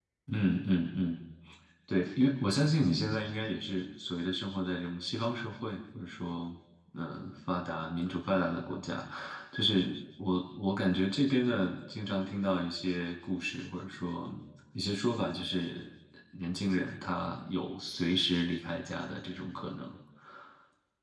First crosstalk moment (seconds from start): none

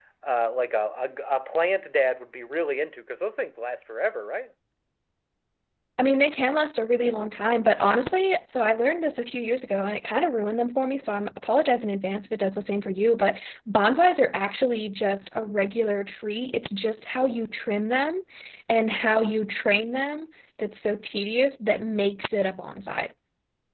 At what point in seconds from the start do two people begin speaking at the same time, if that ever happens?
none

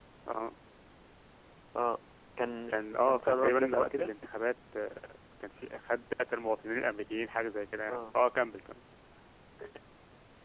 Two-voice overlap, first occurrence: 2.7 s

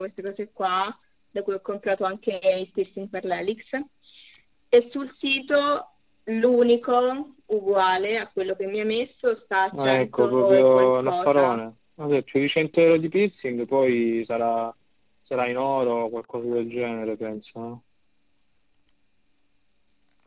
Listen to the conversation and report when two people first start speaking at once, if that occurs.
9.7 s

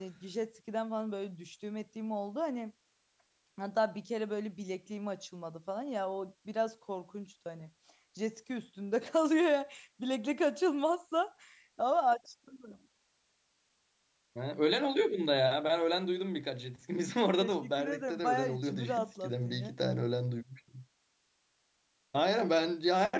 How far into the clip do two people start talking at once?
17.4 s

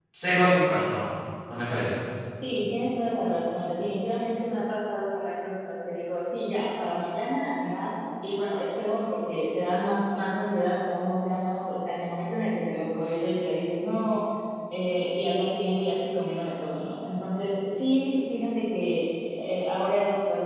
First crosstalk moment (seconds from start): none

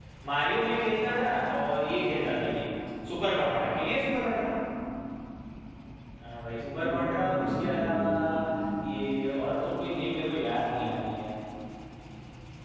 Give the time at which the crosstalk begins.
6.8 s

